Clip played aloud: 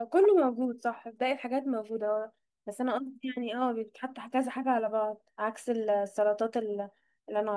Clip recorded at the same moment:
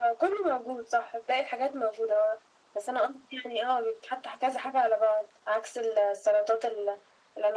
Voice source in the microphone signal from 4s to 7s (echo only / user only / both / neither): echo only